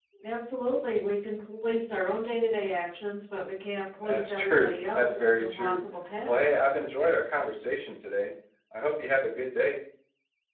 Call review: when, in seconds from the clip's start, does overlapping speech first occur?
4.0 s

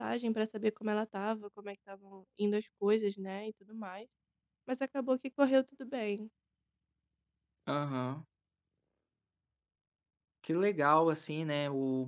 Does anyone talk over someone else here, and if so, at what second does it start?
none

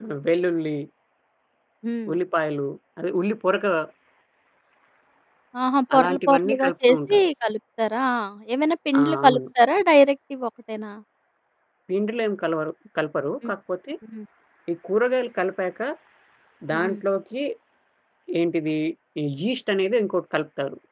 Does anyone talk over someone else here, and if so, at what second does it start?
5.9 s

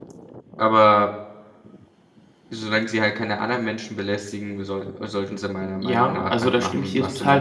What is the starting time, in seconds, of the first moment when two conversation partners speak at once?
5.8 s

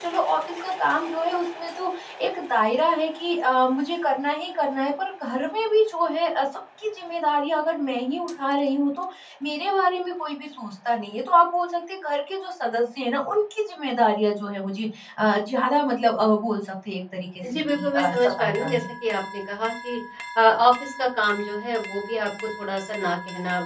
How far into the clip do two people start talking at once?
17.4 s

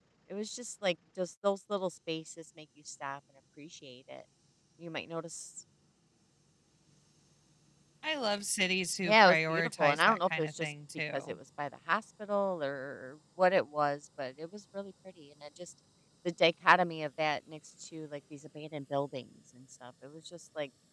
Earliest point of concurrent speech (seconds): 9.0 s

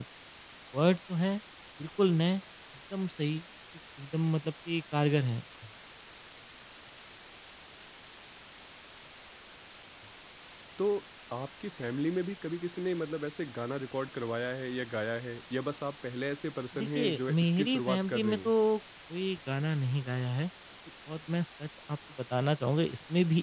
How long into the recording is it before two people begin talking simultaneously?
16.7 s

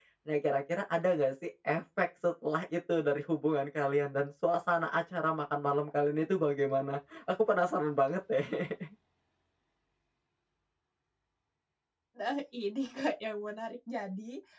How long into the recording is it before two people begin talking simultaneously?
none

